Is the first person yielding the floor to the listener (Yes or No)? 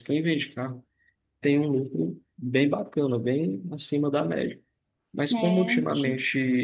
No